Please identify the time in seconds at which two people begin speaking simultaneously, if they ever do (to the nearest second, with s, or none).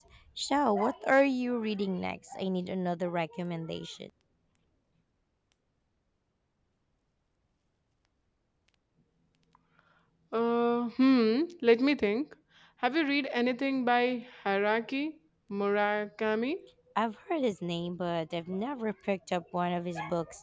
none